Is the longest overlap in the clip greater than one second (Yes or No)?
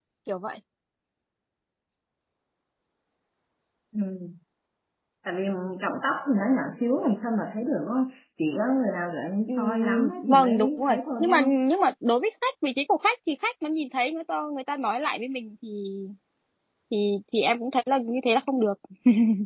Yes